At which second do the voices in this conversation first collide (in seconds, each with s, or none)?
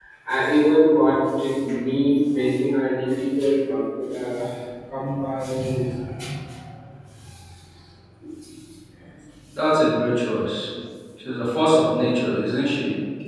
none